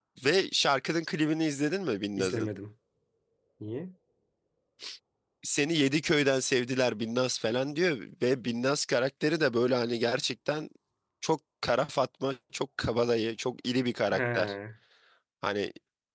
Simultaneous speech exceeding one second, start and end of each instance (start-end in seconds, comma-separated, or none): none